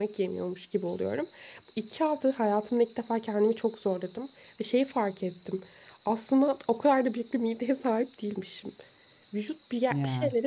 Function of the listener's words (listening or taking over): listening